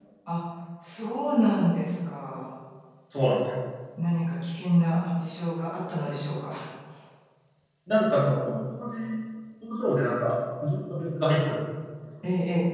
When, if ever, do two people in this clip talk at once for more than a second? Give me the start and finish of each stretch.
none

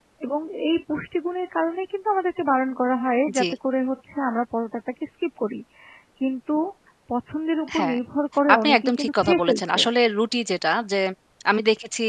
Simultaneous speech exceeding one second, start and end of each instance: 8.5-9.8

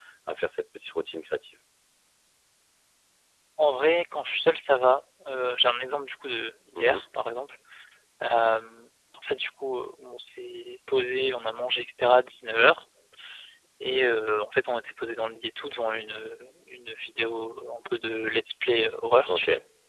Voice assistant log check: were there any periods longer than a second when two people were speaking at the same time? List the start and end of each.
none

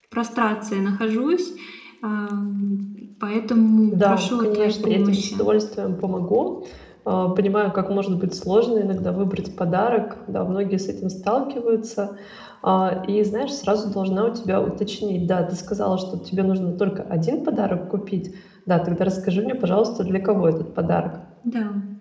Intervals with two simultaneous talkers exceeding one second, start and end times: 3.9-5.3

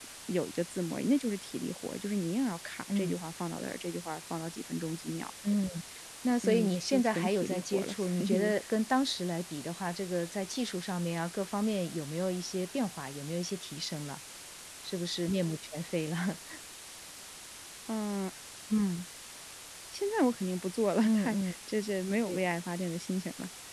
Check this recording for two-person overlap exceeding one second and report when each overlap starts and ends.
6.4-8.5

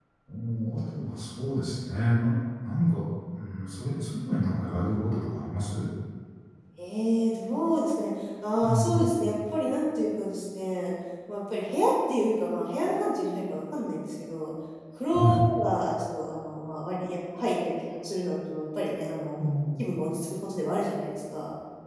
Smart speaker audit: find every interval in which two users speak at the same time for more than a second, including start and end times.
none

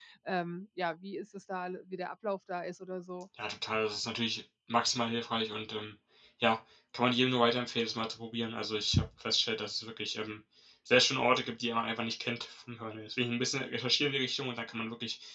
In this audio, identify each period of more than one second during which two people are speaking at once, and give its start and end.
none

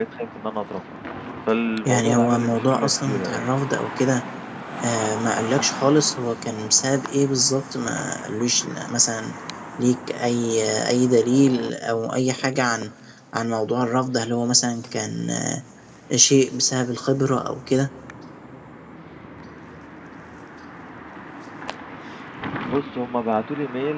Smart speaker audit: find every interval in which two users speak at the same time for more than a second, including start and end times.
1.9-3.5

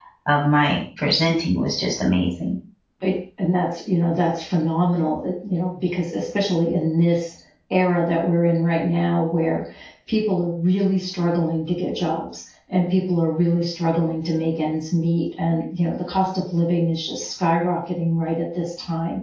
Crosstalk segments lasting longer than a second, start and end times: none

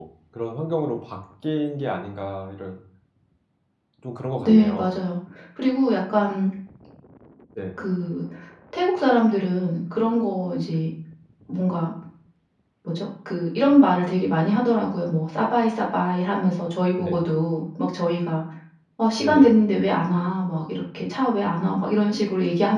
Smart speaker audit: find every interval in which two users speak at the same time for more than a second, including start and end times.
none

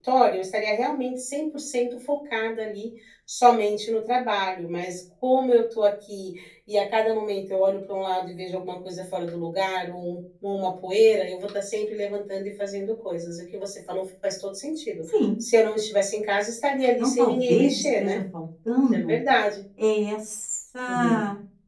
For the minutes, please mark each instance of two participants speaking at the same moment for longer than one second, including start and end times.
17.0-18.2

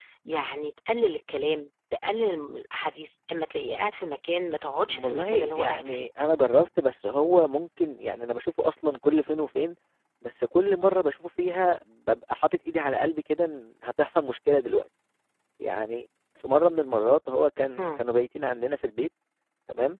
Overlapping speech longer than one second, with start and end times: 4.9-6.1

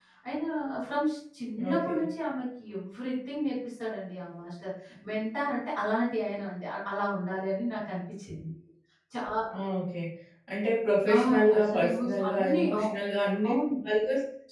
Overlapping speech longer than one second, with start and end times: 11.2-12.8

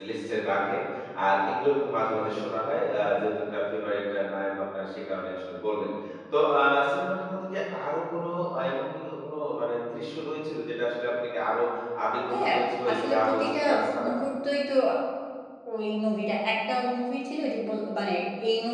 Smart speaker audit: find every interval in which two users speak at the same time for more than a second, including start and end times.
12.9-14.1

